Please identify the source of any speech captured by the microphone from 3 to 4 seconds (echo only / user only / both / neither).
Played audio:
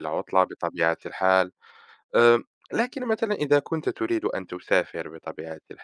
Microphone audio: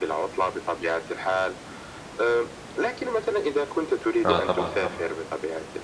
echo only